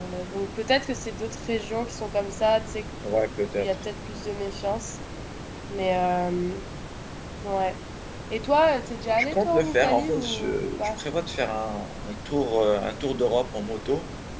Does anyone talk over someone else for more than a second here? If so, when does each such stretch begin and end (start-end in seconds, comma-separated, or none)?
9.2-11.0